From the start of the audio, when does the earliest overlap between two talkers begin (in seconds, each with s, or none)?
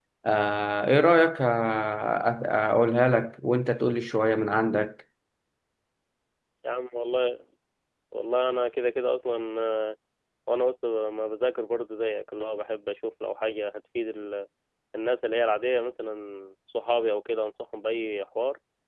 none